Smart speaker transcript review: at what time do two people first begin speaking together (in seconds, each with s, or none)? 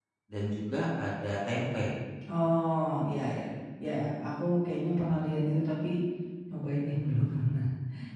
none